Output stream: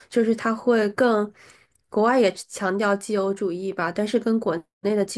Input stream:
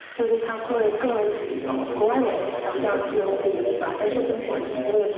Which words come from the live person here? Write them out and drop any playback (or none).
啊、这个一个比较好的绩效，然后进而会影响到他的未来的升迁，